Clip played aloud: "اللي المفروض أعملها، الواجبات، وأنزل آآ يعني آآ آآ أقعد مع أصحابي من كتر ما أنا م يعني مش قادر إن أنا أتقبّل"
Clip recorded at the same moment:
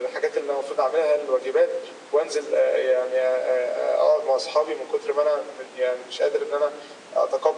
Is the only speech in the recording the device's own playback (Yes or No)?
Yes